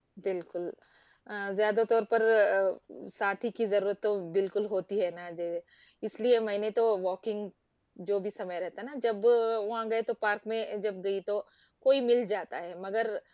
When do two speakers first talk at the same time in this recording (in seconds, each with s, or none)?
none